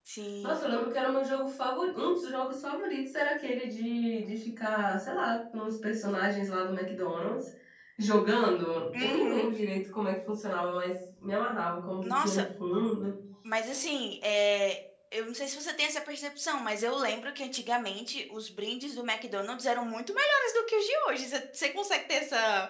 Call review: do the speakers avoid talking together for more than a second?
Yes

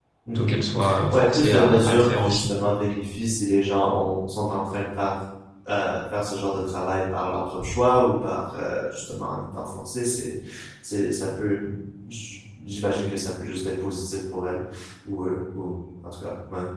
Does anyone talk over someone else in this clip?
Yes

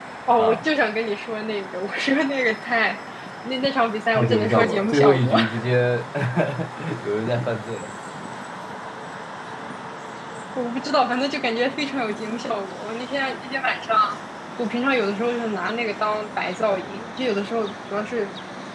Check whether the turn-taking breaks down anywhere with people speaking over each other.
Yes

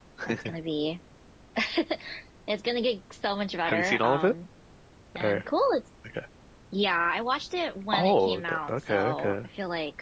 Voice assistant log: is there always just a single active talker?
No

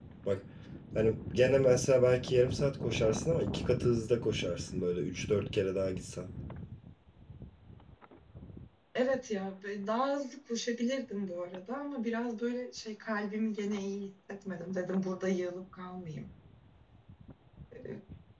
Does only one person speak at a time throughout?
Yes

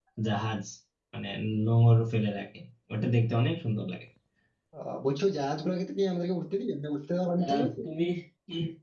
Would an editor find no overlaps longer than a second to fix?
Yes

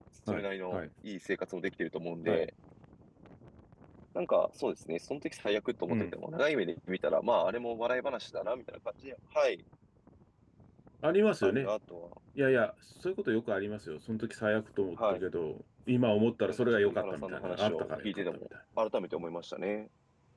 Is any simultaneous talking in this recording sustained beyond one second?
Yes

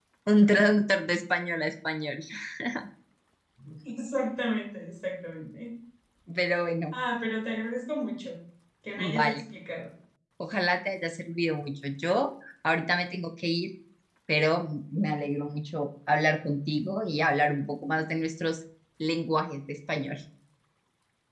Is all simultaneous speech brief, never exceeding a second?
Yes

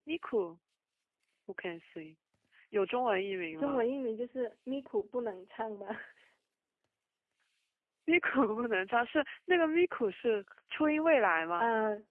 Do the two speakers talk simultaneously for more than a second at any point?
No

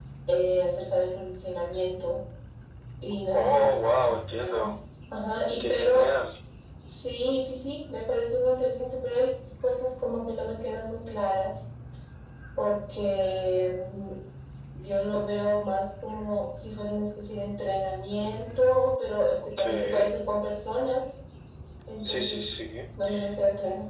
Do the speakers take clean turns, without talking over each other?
No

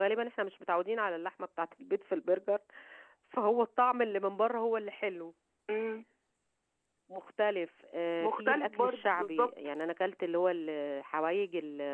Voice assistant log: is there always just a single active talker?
No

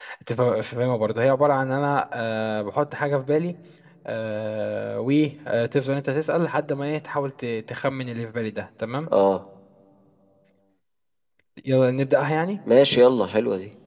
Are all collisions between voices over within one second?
Yes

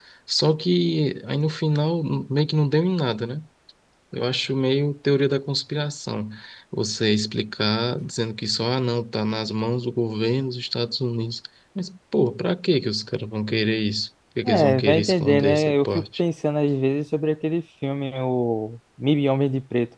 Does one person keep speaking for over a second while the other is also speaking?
Yes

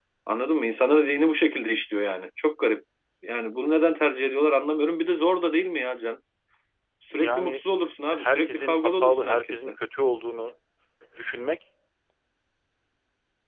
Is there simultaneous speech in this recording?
Yes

